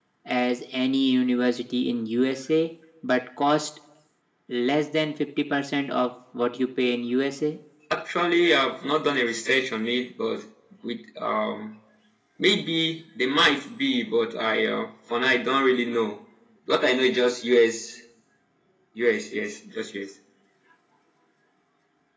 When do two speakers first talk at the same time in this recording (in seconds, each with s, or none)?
none